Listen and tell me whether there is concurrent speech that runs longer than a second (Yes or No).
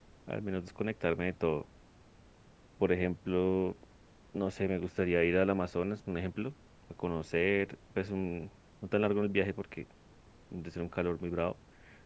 No